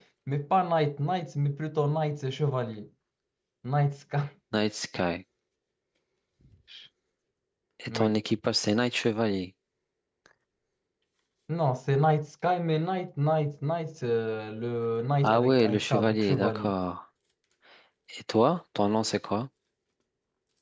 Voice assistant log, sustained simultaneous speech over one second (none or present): present